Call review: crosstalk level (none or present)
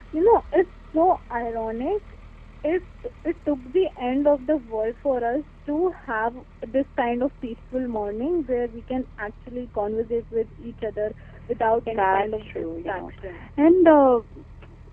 present